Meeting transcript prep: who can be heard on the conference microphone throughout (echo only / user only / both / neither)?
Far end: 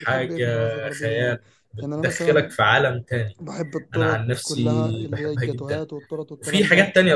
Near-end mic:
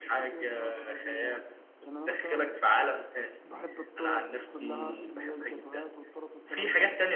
echo only